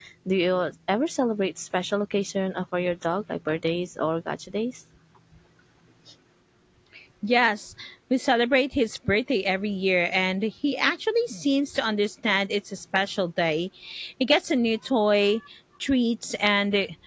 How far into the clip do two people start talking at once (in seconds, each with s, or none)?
none